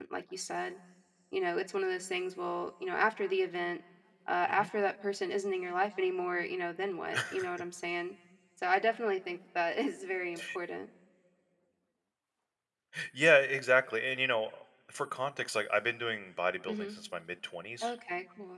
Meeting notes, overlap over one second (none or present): none